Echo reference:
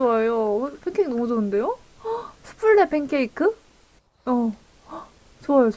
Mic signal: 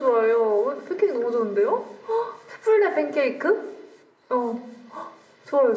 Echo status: present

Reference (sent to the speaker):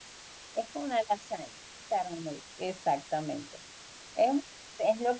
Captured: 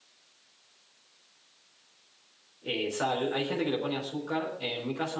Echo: none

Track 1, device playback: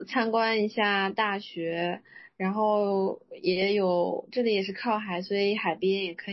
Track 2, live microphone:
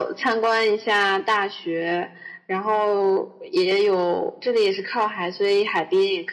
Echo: present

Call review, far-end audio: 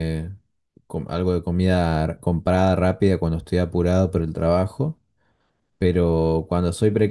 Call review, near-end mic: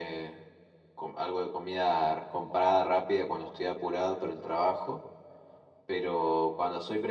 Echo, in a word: present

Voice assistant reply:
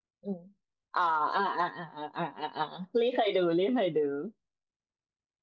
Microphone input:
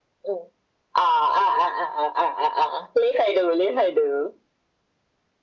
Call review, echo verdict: present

